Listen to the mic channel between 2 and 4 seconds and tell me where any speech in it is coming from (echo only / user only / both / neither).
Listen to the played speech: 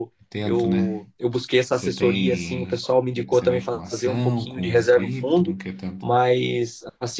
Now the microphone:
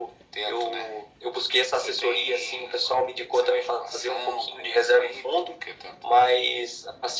echo only